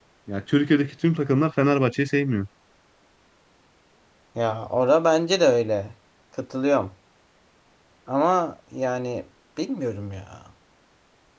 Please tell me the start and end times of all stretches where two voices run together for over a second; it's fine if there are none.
none

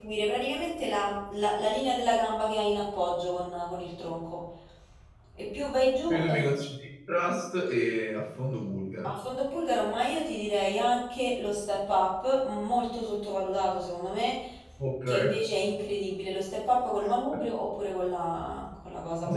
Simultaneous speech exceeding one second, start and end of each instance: none

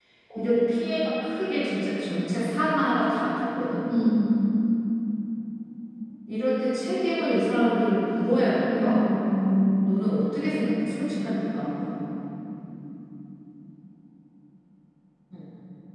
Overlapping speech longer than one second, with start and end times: none

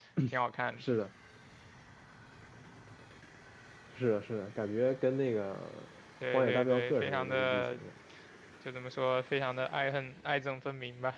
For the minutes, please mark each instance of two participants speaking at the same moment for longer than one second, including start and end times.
6.3-7.8

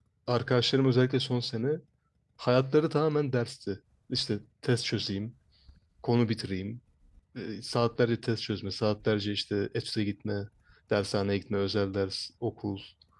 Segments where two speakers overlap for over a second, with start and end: none

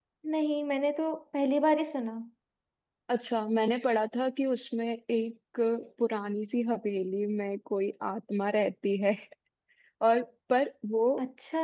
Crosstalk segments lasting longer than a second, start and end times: none

